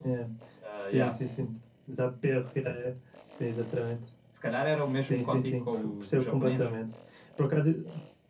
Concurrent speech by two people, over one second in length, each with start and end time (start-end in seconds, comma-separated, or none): 5.0-6.7